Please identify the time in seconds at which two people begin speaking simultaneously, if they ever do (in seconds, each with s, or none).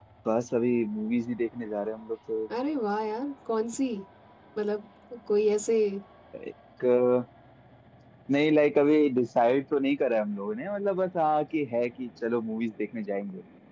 none